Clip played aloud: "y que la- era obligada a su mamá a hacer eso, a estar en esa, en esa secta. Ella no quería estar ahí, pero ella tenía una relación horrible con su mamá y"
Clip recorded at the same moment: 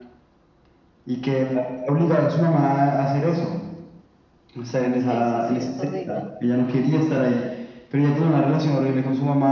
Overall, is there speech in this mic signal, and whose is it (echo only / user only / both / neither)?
both